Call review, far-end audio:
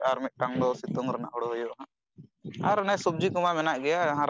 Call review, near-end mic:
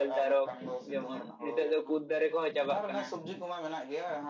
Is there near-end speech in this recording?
Yes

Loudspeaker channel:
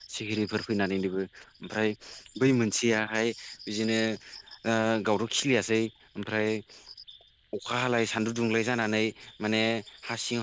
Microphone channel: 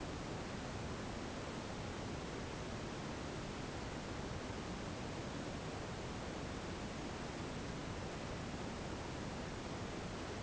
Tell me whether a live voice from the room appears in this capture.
No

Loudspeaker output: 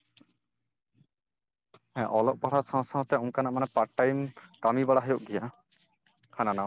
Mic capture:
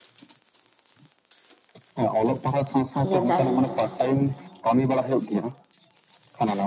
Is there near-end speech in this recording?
Yes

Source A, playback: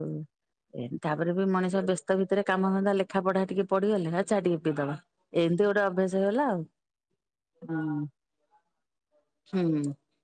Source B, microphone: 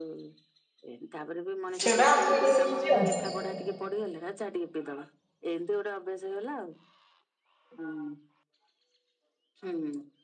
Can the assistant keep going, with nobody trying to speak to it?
No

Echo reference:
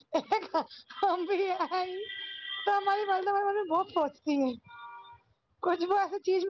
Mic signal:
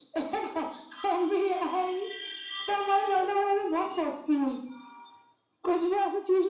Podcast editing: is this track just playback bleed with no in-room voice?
Yes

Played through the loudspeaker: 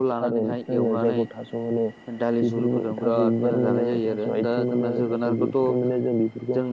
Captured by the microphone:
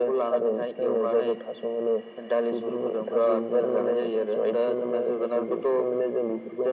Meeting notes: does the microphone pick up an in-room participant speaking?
No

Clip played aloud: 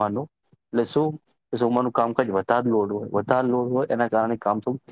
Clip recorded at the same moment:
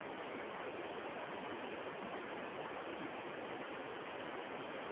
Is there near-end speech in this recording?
No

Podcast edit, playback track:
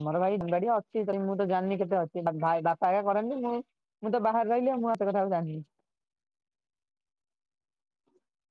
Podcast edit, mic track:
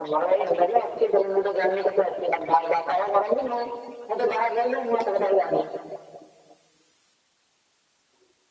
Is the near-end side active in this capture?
No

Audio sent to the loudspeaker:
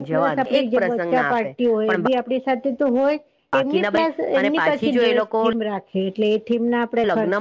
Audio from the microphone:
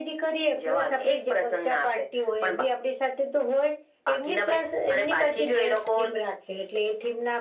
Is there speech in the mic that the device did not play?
No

